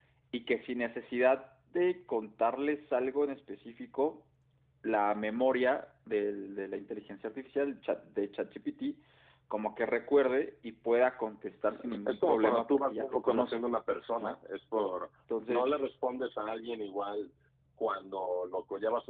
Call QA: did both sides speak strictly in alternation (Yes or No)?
No